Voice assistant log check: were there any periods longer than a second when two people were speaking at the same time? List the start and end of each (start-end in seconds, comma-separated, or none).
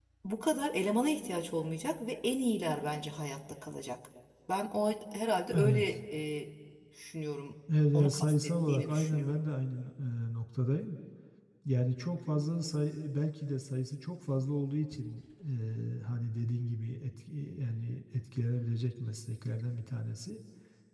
7.9-9.4